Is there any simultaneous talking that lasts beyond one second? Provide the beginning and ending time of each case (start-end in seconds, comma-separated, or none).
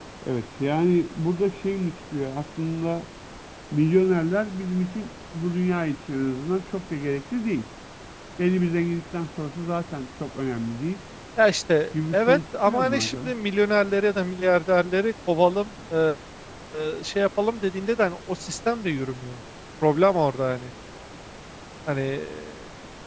12.1-13.3